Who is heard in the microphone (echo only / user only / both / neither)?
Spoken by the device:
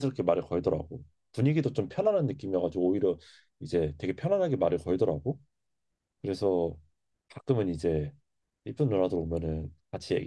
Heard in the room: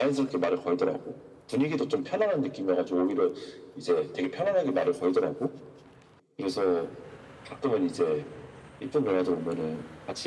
echo only